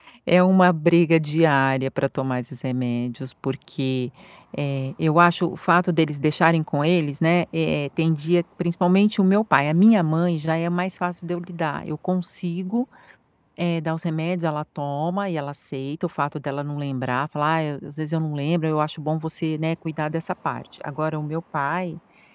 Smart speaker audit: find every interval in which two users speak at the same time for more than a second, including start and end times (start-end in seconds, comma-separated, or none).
none